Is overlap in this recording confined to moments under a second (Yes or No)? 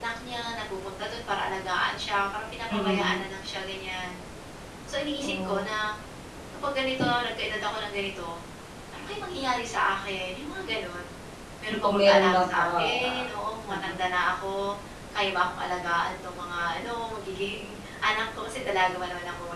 No